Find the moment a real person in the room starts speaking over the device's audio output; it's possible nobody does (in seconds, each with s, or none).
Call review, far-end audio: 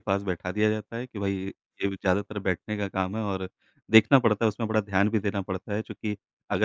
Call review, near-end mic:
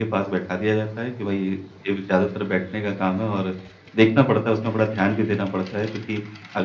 none